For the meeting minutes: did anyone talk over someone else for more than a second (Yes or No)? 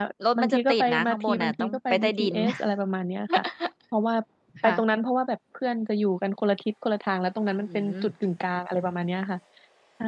Yes